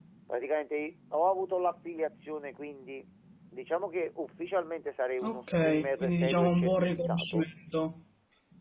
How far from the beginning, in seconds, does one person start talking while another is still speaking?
5 s

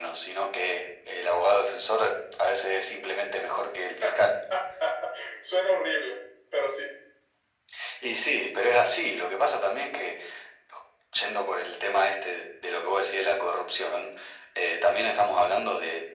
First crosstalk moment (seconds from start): none

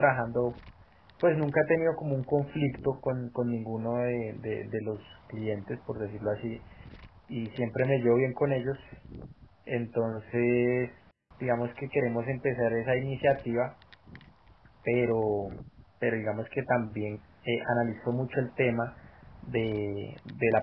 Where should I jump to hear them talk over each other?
none

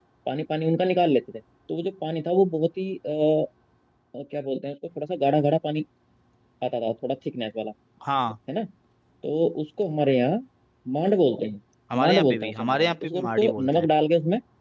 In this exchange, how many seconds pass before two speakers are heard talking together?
12 s

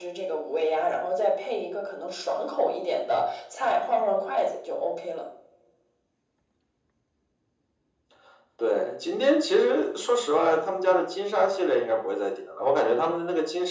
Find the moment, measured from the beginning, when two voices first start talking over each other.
none

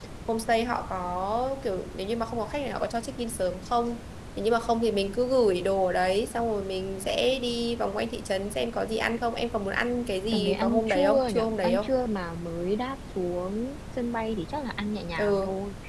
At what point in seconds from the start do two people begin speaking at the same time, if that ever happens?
10 s

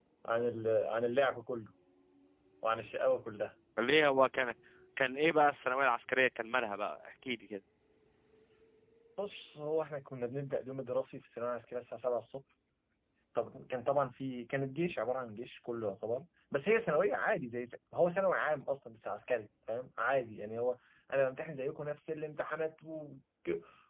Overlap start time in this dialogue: none

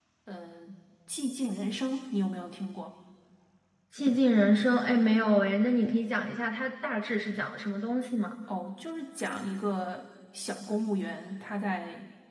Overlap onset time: none

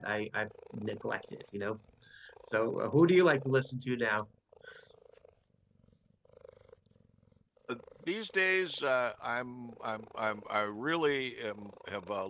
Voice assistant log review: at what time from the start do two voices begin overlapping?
none

